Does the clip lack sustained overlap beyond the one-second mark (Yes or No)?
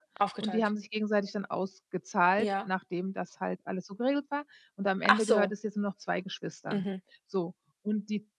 Yes